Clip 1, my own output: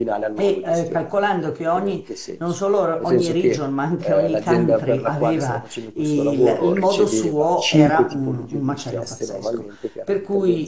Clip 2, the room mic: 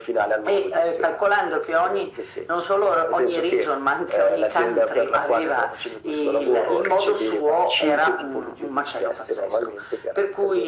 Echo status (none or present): present